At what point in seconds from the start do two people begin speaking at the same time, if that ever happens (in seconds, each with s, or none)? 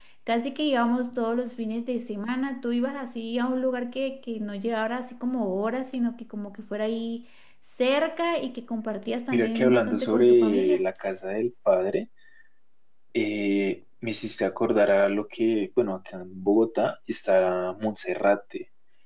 9.3 s